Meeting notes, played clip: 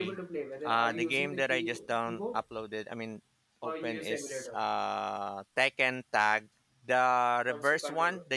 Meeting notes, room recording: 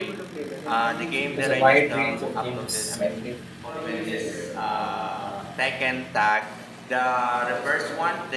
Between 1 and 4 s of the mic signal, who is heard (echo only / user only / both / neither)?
both